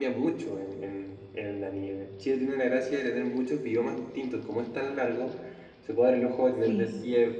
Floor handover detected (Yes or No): No